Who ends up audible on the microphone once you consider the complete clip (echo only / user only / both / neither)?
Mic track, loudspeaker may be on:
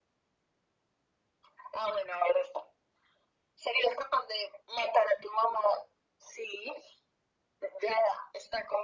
echo only